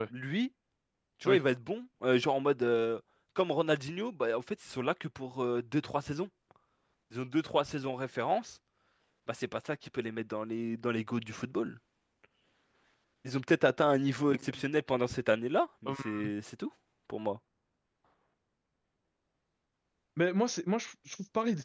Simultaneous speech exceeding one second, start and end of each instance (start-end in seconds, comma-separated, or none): none